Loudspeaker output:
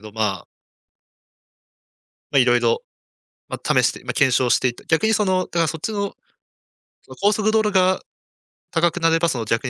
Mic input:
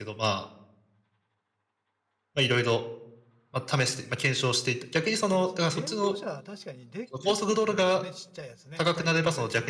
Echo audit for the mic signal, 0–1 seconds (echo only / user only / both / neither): echo only